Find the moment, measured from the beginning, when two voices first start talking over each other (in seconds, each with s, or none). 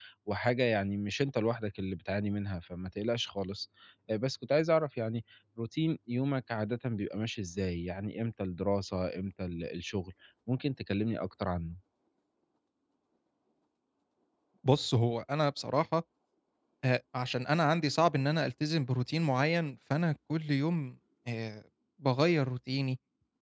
none